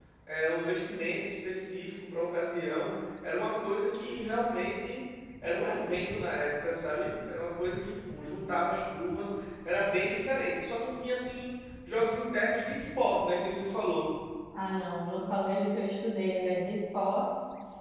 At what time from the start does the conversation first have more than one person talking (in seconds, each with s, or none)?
none